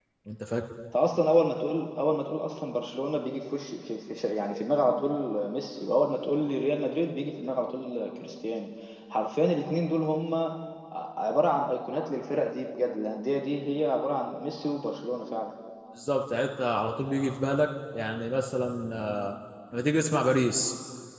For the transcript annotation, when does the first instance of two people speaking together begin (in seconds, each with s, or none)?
none